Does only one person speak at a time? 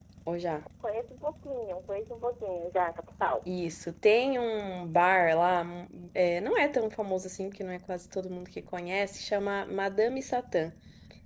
Yes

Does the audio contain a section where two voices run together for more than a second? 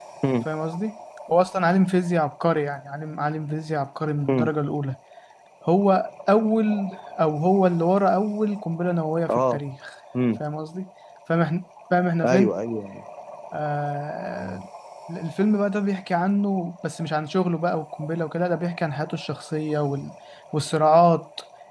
No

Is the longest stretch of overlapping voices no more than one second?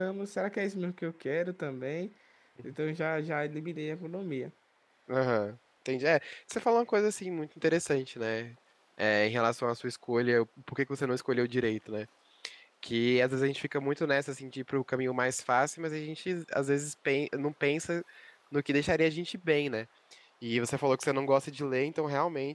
Yes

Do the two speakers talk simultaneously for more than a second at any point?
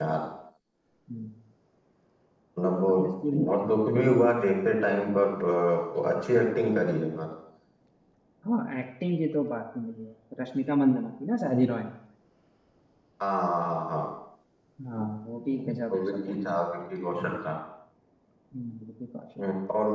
No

